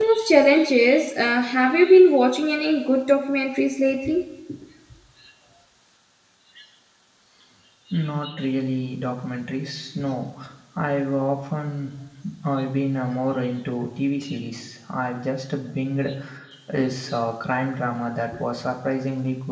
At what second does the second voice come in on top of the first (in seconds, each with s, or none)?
none